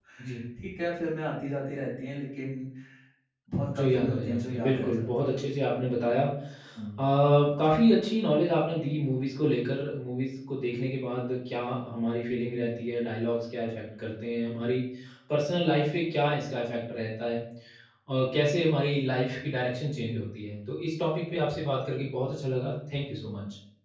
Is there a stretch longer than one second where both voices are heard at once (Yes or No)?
Yes